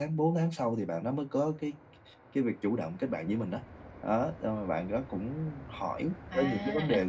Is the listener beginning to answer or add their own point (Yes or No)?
No